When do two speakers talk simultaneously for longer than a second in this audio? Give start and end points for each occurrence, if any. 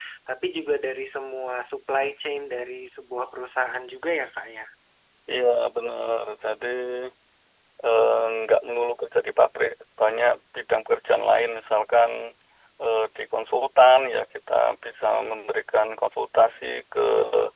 none

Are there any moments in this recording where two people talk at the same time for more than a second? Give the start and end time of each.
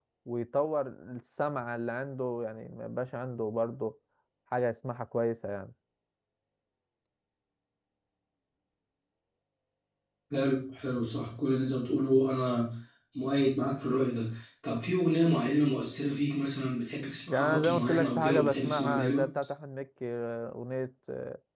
17.3-19.2

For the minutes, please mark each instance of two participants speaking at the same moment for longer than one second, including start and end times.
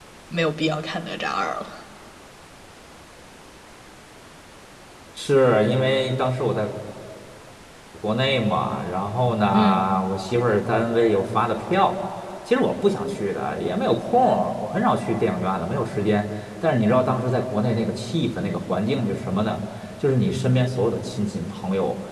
none

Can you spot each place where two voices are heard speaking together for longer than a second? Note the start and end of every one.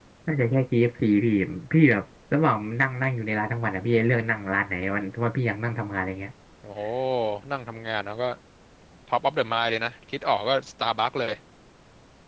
none

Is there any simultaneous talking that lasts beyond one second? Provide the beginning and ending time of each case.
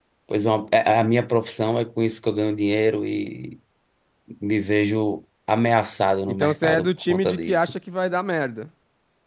6.3-7.7

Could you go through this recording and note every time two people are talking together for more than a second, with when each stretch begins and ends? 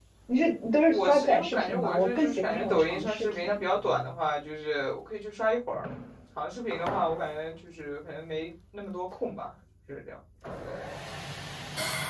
0.9-3.6

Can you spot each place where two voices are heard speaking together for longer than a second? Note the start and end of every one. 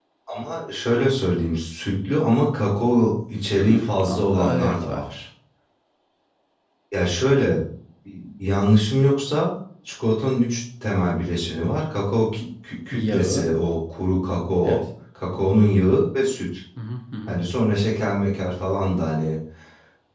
3.6-5.0

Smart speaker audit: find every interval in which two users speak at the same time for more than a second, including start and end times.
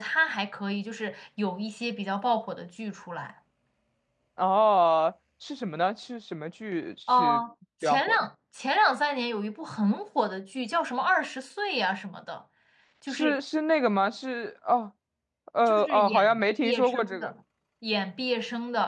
15.6-17.3

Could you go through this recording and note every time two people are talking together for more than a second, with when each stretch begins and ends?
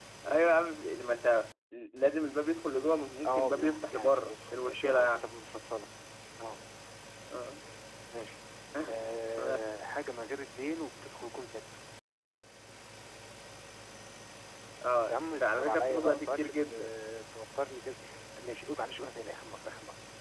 3.2-5.2, 15.1-16.9

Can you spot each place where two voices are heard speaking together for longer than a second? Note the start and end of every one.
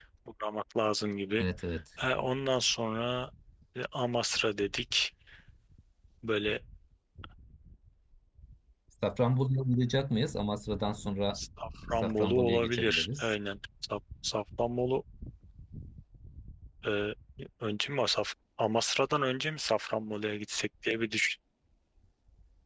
12.0-13.3

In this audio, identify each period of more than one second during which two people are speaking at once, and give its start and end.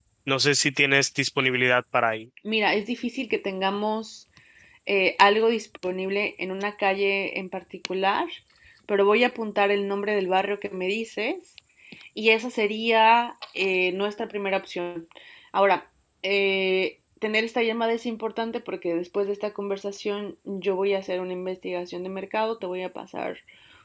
none

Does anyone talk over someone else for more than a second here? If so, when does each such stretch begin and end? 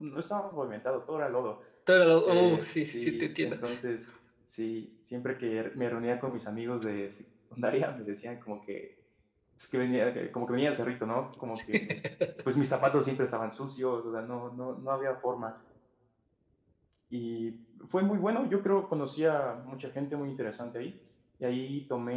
2.2-3.5

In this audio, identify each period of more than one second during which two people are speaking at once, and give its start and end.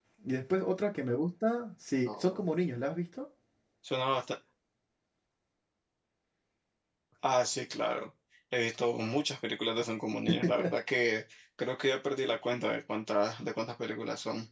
none

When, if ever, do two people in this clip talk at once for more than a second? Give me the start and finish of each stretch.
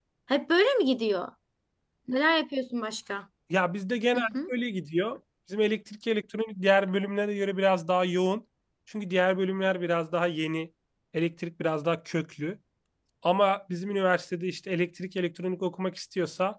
none

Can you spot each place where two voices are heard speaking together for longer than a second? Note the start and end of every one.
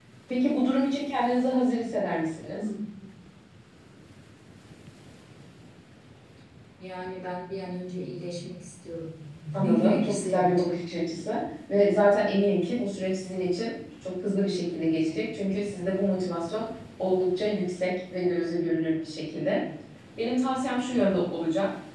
9.6-10.8

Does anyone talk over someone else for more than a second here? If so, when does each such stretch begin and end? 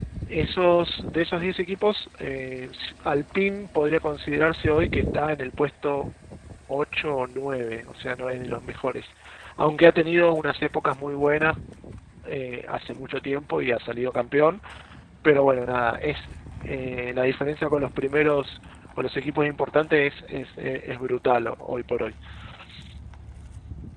none

